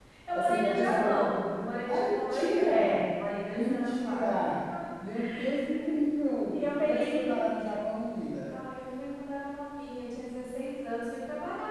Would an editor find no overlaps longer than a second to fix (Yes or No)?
No